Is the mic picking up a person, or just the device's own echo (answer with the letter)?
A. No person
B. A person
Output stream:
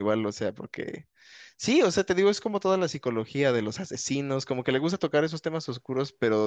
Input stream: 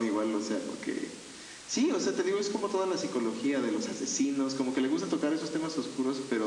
A